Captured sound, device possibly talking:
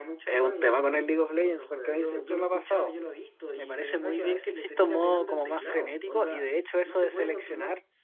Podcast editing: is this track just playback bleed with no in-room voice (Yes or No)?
No